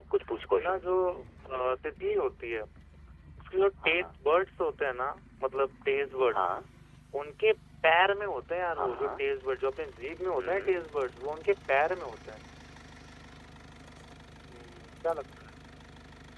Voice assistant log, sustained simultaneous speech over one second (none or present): none